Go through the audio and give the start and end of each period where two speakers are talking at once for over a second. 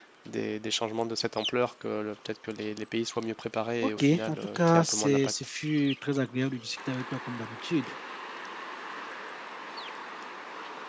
3.8-5.3

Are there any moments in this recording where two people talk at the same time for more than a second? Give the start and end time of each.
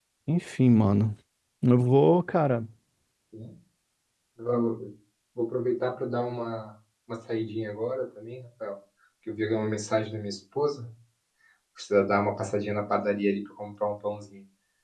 none

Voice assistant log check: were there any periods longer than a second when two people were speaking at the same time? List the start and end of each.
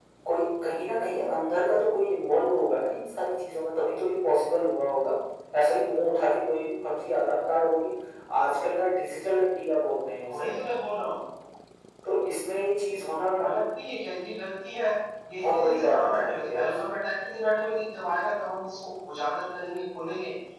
15.4-16.6

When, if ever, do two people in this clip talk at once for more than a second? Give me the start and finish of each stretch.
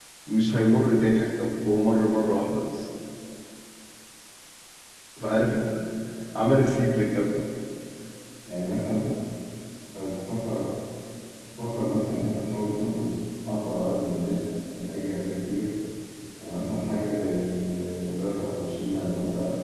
none

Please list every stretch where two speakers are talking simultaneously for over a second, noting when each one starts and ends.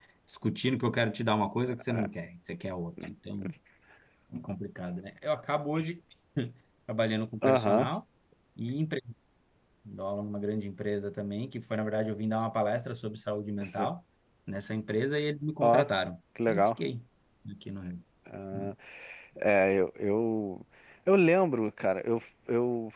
none

